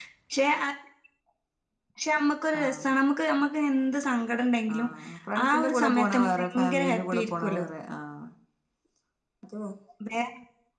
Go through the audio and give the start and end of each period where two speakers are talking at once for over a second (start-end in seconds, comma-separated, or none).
5.5-7.5